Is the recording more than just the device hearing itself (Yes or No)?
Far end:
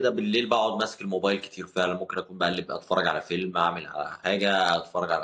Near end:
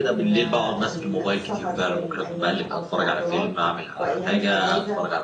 Yes